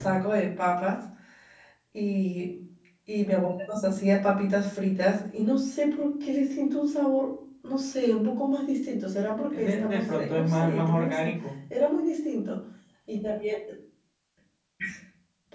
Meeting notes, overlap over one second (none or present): present